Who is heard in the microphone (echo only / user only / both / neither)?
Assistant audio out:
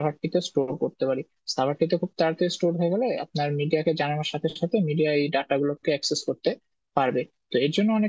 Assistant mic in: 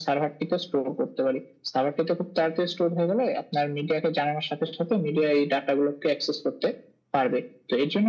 echo only